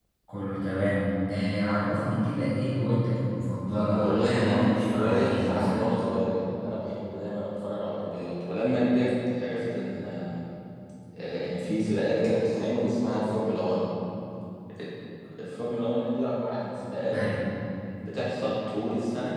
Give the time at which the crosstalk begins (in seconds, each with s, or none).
3.9 s